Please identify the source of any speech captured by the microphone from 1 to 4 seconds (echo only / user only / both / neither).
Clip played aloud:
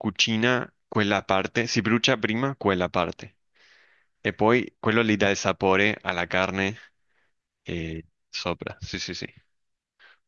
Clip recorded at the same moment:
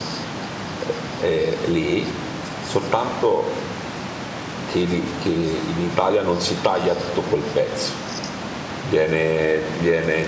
user only